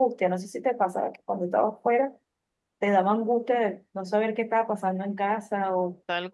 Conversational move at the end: taking over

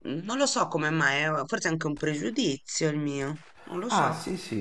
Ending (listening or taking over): taking over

